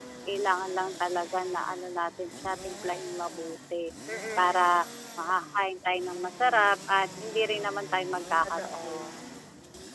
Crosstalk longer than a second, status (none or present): none